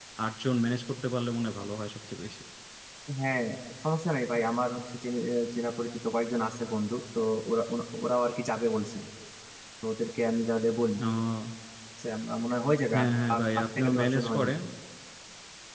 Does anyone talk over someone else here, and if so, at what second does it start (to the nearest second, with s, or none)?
13 s